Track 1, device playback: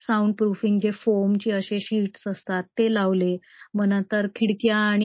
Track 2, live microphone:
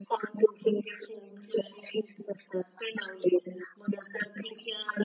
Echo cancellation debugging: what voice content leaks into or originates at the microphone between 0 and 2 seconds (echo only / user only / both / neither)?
echo only